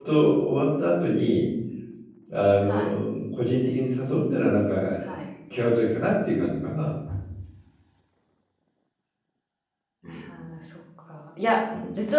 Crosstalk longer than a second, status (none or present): none